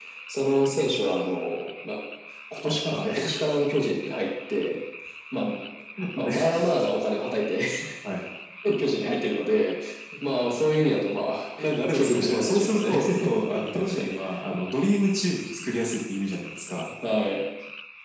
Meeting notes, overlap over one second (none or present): present